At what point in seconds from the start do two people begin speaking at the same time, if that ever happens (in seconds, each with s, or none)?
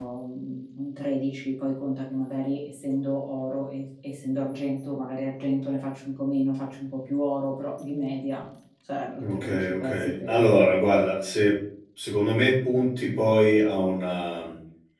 9.2 s